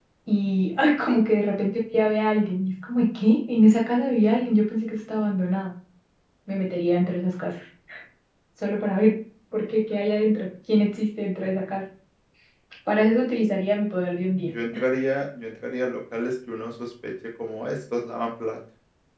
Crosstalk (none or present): none